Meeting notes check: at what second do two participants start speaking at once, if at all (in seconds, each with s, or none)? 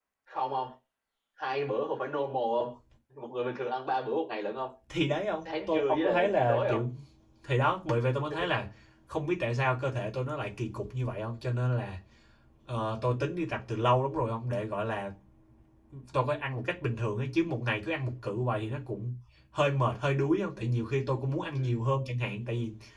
5.5 s